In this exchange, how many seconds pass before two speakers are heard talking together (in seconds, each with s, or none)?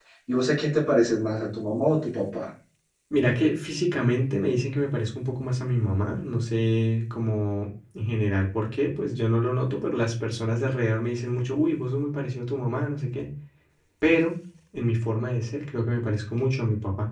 none